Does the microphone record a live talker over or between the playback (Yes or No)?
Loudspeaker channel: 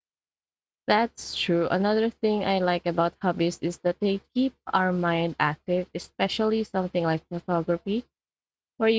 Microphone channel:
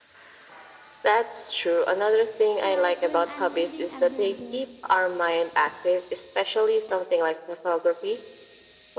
Yes